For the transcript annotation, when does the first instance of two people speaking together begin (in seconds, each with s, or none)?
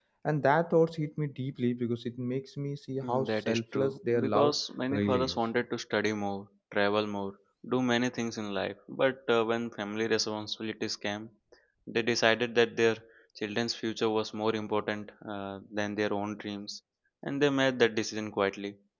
3.0 s